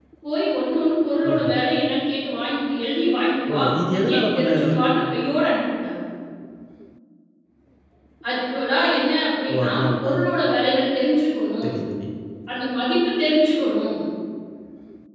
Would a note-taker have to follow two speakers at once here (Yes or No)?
Yes